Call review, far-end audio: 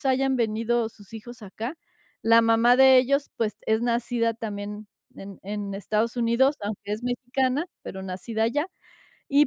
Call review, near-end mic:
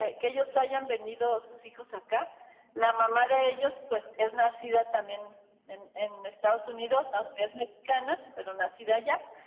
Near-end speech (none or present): none